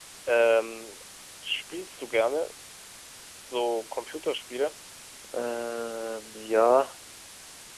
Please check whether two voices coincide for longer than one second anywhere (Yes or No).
No